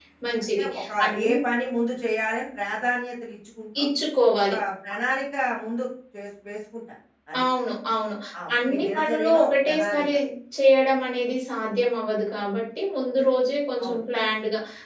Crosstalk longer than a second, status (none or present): present